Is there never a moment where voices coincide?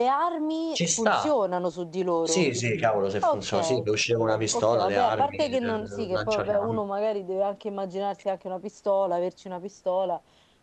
No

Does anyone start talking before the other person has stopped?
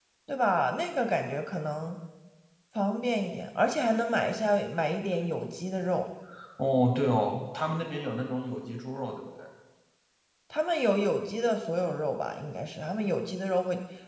No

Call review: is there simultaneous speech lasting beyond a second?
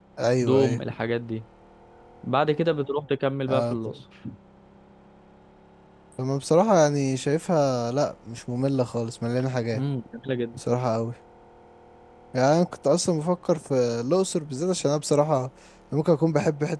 No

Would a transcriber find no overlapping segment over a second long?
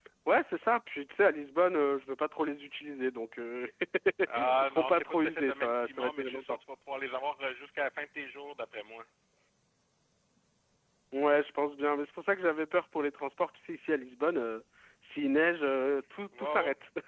No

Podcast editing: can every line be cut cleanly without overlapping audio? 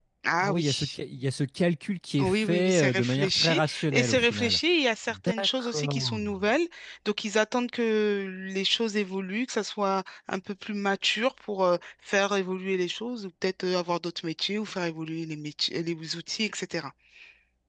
No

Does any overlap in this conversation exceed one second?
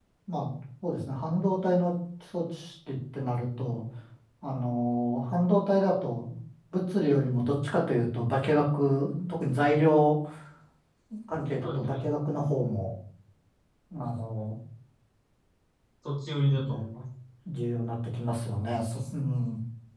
No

